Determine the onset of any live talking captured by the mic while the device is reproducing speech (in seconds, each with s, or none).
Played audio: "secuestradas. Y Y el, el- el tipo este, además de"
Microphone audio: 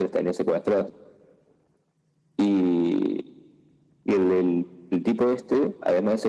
none